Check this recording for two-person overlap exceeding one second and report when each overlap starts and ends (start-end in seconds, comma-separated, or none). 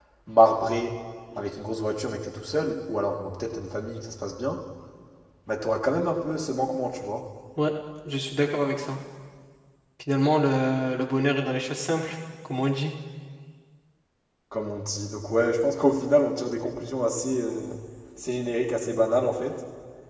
none